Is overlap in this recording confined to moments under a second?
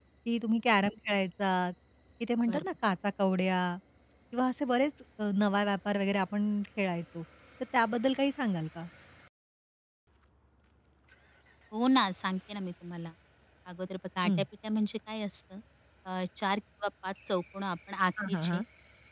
Yes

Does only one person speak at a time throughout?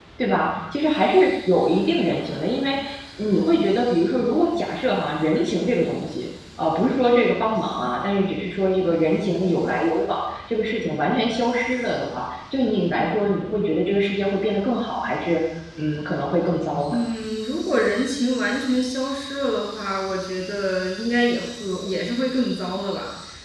Yes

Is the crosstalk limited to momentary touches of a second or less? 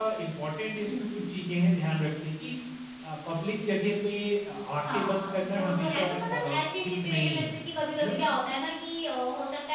No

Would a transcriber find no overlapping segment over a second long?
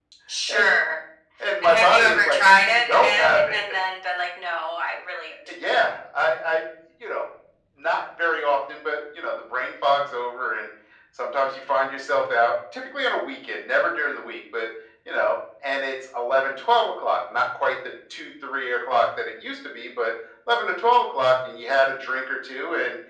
No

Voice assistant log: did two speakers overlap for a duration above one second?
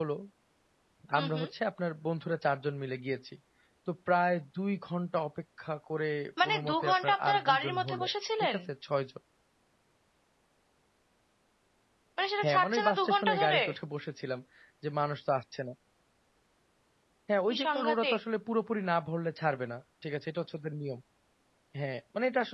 Yes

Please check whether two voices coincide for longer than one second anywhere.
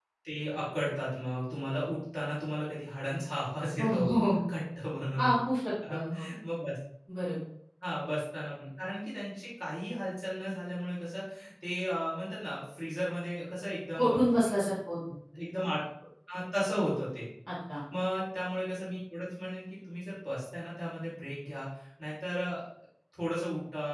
No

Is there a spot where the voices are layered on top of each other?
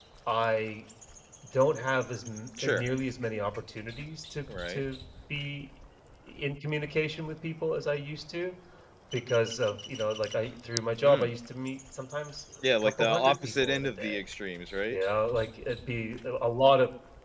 Yes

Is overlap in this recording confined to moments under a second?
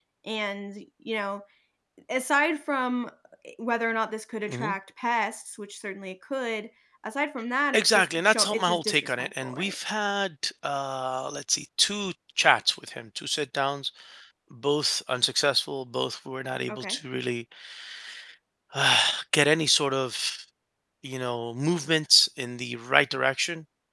No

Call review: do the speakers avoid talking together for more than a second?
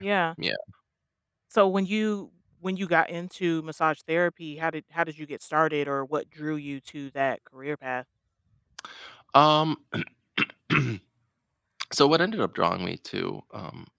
Yes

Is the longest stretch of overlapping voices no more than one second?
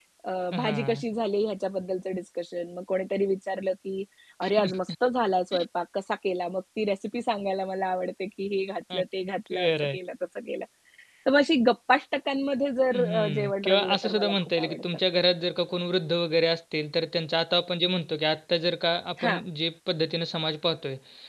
No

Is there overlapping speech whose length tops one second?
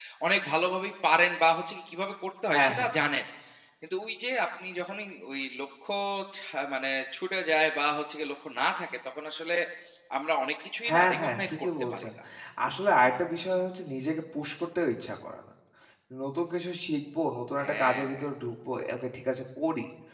Yes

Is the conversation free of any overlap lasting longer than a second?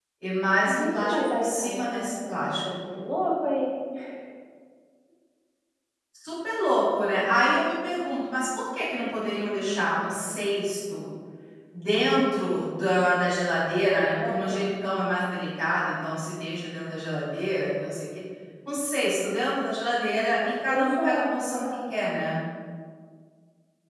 No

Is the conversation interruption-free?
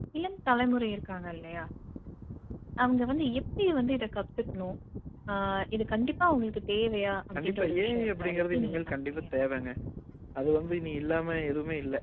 No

